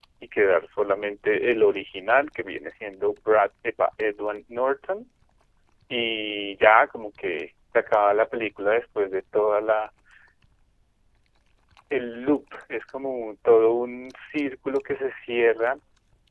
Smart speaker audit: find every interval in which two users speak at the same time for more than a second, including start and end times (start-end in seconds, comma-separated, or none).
none